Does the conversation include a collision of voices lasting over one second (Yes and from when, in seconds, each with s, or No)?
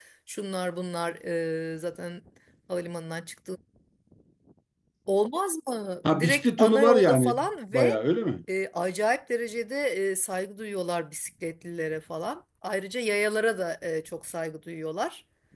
Yes, from 6.0 s